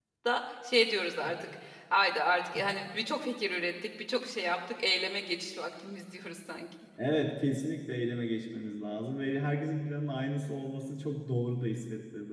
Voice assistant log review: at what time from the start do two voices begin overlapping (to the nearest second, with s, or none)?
none